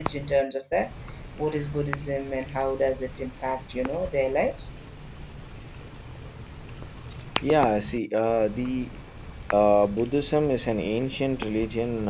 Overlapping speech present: No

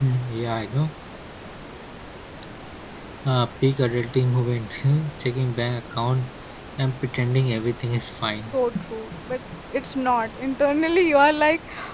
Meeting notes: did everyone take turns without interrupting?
Yes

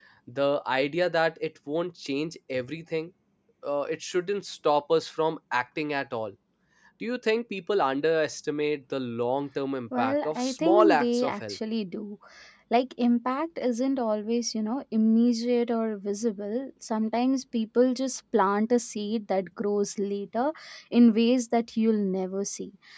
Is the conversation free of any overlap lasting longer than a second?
No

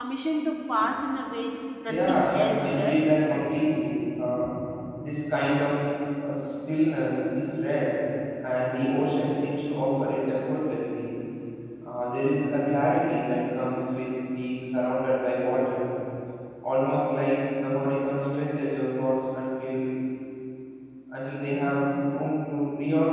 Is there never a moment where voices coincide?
No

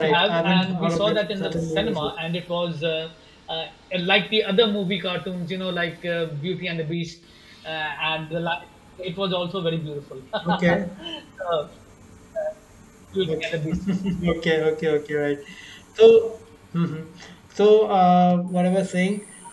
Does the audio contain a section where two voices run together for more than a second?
Yes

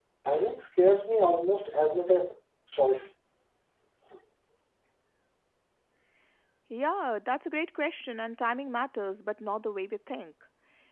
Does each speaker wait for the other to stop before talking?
Yes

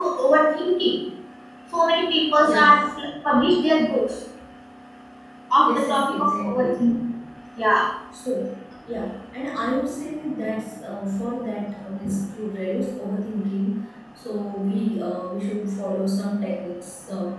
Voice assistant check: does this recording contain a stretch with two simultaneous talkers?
Yes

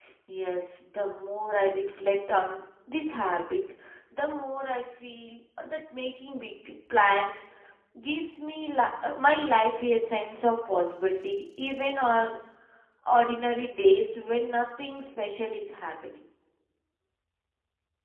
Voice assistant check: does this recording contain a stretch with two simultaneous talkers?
No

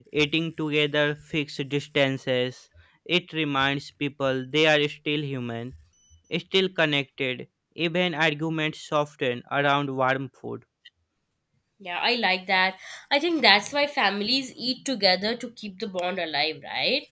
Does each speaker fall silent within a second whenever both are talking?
Yes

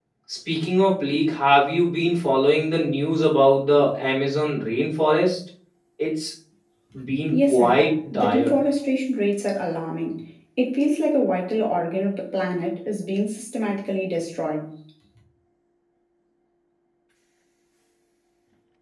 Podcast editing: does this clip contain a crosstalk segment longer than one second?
Yes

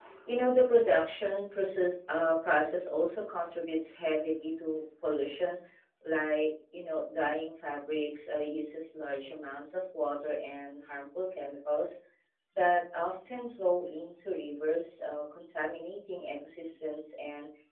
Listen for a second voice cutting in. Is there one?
No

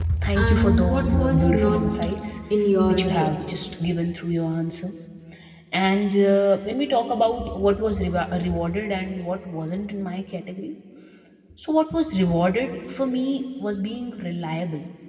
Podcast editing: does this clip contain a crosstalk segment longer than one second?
Yes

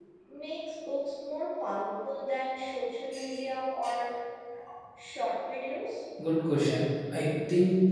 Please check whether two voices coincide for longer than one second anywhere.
No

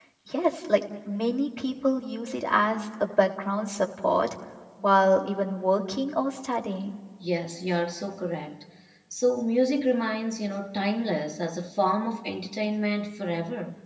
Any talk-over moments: No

